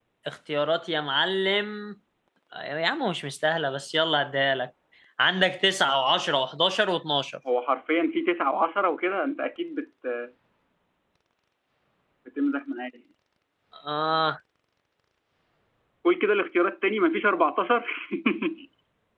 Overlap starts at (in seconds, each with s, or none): none